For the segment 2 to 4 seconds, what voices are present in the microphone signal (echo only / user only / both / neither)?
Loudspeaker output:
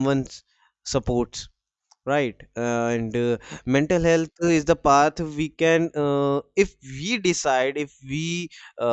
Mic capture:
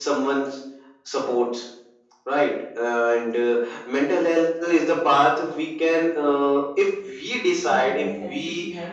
echo only